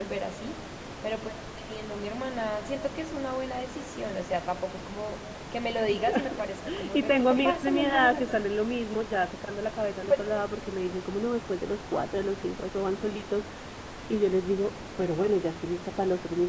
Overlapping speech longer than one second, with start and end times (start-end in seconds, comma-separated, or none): 6.9-8.3